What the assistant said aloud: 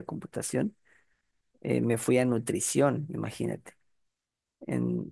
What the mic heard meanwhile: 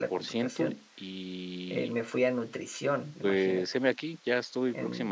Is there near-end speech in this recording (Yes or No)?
Yes